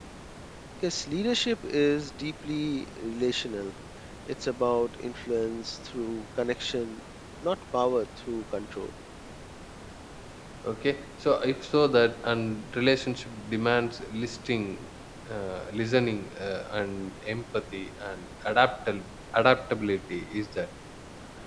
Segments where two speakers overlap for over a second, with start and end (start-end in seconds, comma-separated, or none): none